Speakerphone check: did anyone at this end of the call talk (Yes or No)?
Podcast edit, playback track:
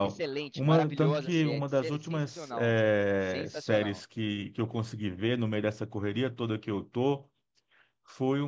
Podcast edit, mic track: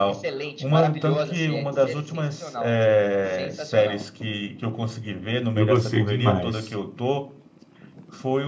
Yes